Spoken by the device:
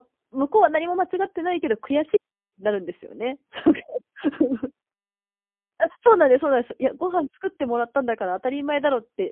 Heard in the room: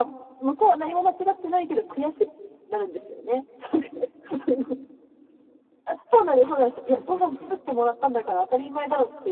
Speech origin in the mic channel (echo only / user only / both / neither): both